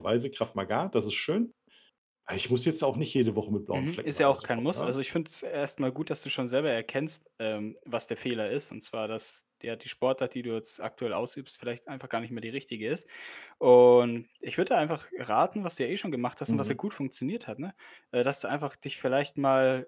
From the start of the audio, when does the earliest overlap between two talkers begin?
3.7 s

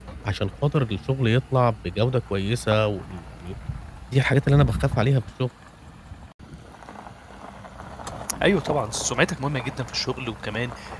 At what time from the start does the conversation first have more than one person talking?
none

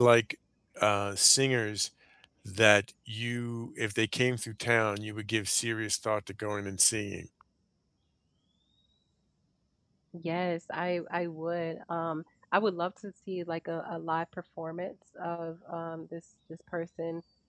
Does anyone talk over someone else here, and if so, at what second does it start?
none

